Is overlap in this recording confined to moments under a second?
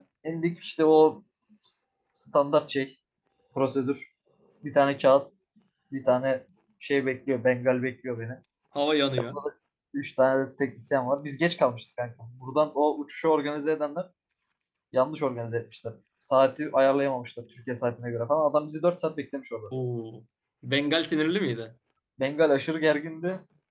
Yes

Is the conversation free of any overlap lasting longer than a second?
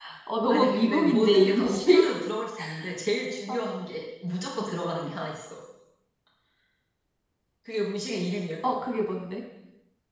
No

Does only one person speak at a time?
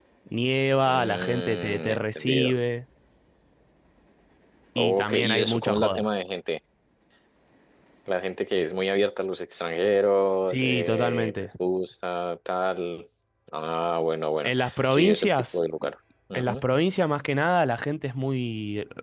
No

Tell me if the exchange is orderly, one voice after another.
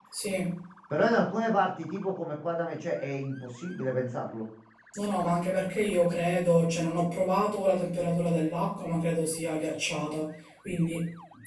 Yes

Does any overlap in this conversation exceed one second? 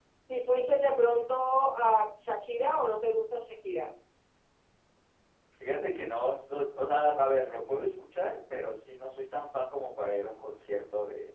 No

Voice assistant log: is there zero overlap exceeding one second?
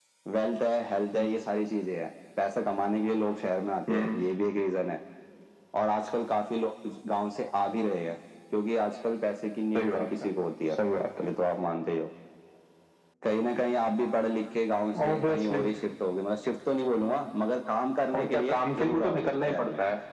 No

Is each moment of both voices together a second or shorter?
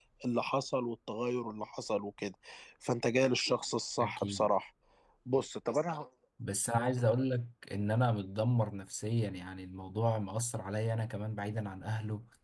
Yes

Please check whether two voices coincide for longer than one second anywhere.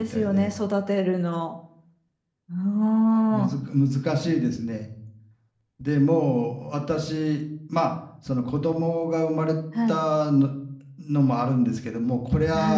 No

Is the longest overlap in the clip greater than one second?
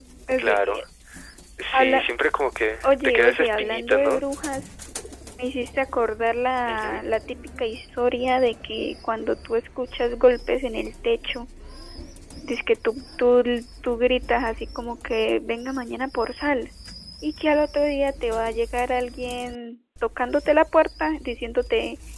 Yes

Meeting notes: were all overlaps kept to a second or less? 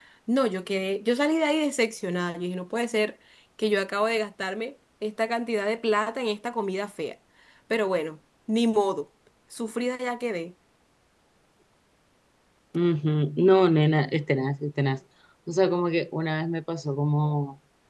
Yes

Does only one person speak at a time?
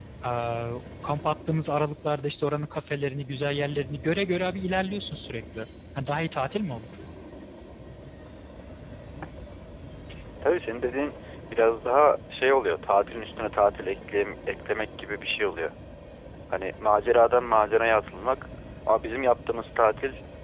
Yes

